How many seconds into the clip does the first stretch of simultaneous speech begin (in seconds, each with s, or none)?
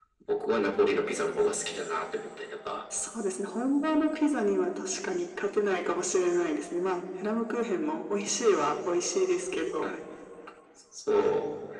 none